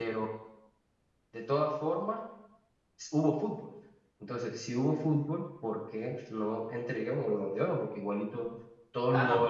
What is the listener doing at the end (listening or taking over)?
taking over